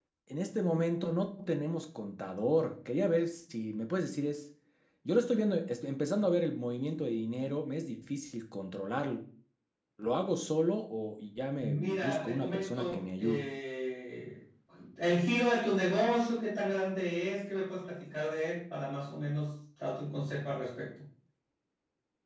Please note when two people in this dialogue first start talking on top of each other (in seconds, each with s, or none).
11.6 s